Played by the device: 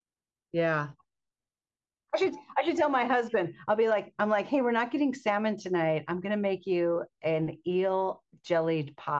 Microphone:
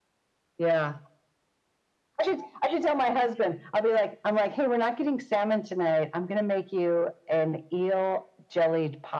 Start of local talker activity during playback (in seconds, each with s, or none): none